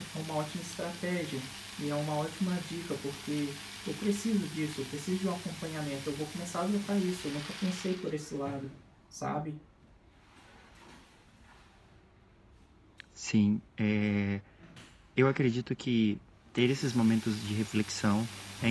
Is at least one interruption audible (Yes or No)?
No